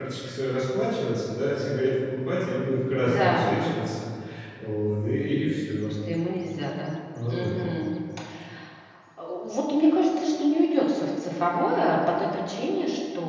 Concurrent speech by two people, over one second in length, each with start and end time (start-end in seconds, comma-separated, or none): none